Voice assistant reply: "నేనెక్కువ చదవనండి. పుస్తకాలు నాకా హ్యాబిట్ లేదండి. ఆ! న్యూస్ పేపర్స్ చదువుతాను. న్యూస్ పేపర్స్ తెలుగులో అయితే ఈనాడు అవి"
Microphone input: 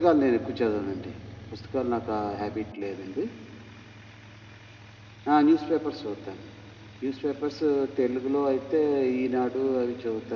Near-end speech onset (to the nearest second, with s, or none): none